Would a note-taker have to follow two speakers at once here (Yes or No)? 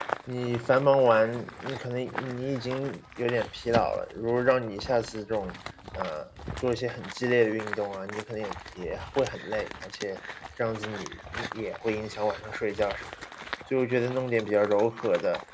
No